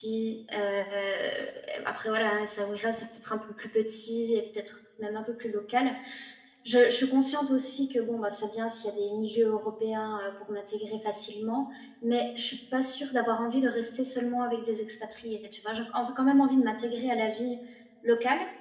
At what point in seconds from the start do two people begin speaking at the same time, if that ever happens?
none

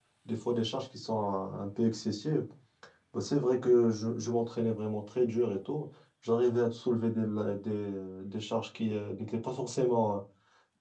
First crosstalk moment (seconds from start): none

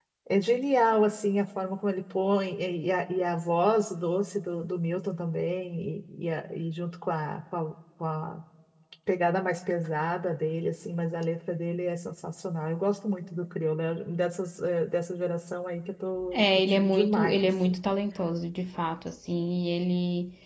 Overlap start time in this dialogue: 16.3 s

